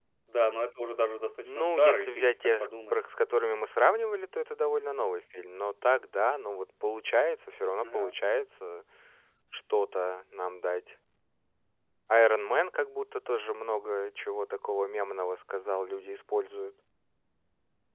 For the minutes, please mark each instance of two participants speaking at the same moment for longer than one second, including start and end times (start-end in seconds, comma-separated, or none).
1.4-3.0